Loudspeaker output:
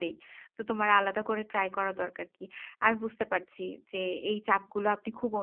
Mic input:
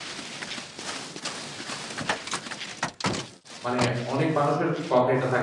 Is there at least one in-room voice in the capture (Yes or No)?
Yes